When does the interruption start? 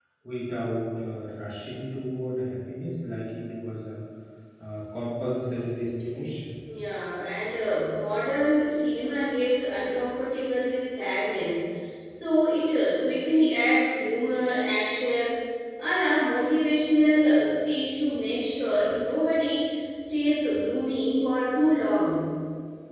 none

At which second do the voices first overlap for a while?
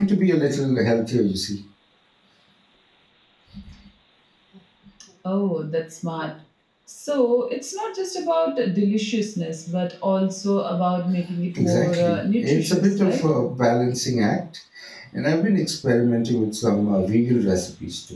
11.6 s

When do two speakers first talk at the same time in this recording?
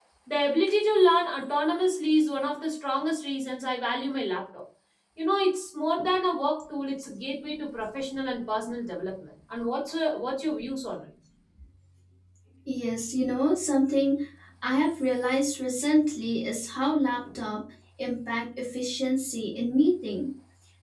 none

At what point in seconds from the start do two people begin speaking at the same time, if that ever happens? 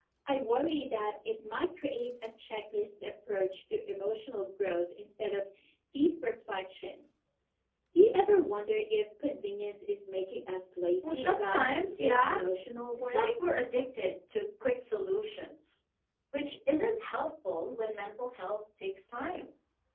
11.0 s

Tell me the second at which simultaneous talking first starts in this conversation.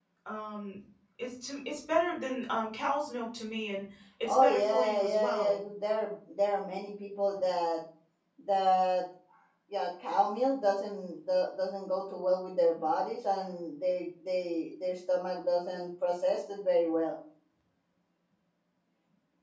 4.2 s

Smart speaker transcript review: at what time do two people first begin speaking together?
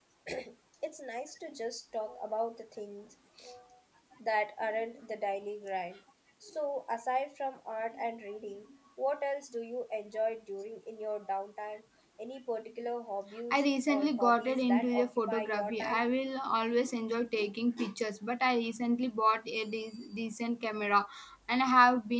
13.5 s

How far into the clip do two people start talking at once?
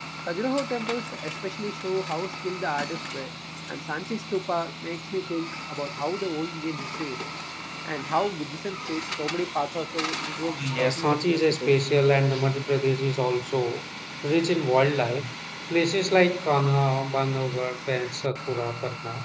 10.4 s

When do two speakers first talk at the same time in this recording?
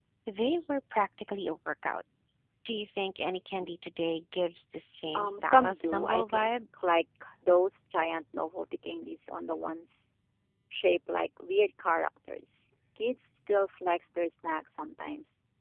5.1 s

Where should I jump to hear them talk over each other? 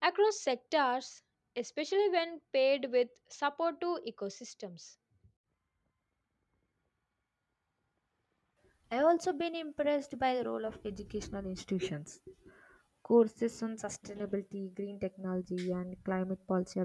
none

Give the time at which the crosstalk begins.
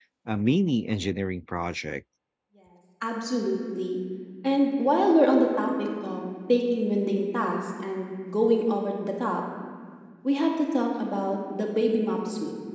none

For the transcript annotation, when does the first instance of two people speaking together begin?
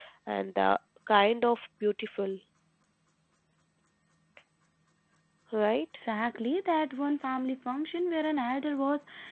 none

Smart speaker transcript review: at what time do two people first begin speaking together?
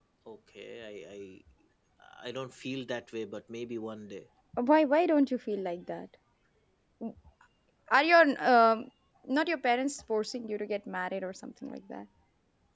none

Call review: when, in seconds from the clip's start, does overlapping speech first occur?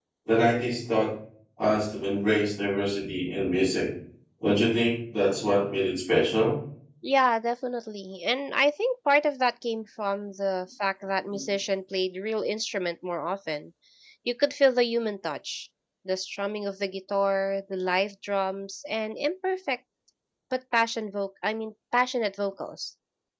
none

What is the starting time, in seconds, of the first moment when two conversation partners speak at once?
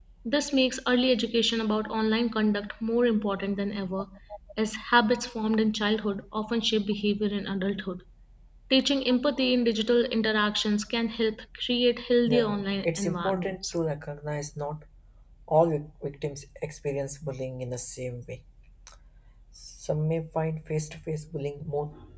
12.3 s

